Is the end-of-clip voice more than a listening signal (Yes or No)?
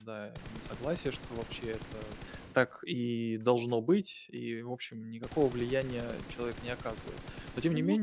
No